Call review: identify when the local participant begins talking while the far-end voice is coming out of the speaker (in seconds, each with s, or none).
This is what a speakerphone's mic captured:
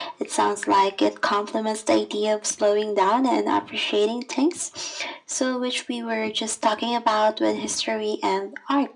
none